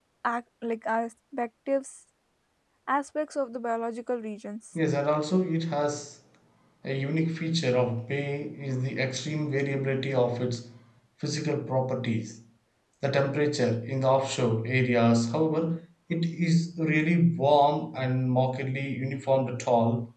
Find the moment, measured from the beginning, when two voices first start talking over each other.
none

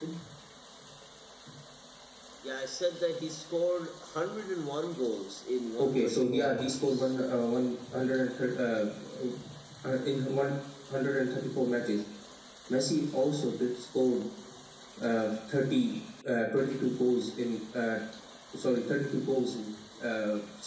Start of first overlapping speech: 5.8 s

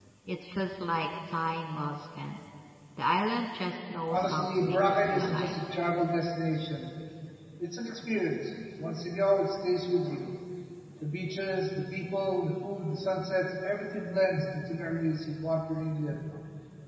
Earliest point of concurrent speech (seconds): 4.1 s

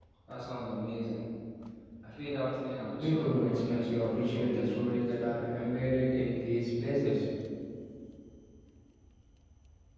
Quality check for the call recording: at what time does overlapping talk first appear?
3.0 s

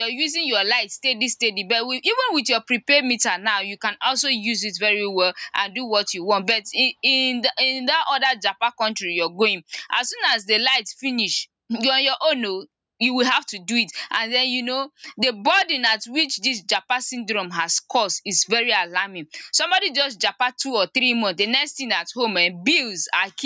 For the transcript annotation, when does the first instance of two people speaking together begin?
none

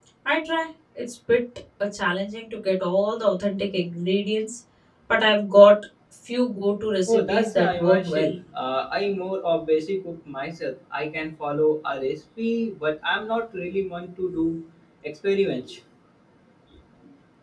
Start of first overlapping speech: 7.1 s

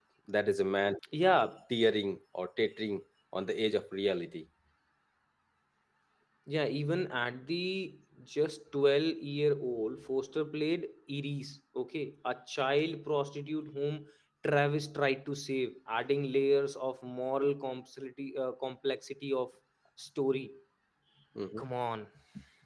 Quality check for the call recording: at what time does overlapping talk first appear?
none

